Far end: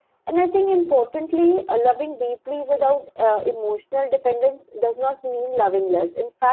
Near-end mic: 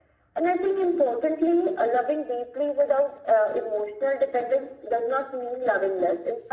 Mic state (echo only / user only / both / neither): echo only